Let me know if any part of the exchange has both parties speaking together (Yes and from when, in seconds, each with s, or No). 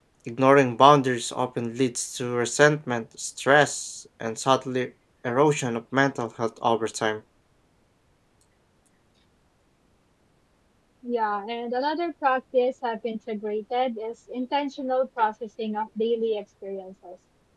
No